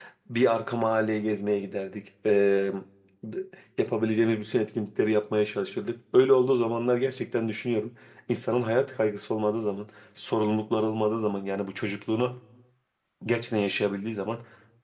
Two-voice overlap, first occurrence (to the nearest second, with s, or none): none